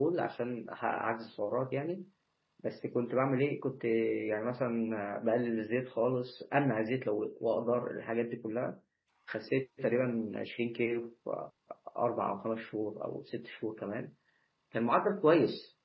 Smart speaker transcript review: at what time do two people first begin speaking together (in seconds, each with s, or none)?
none